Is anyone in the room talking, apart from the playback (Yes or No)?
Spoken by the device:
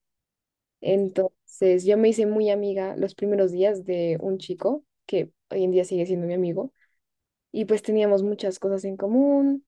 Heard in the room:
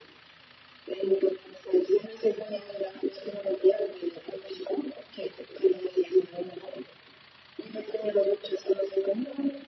No